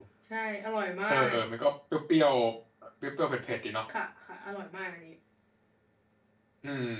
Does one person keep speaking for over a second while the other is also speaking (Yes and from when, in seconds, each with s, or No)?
No